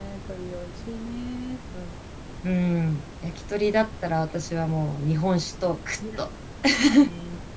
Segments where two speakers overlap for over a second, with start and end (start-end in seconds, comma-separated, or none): none